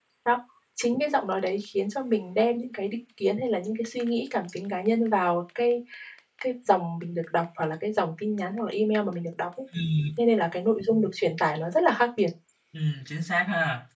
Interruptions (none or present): none